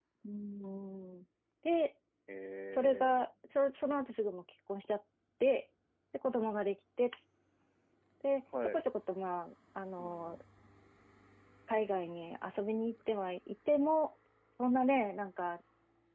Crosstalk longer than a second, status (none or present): none